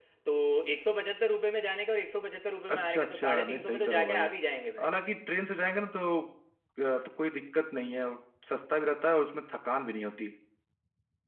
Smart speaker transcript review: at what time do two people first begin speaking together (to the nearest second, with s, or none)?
3 s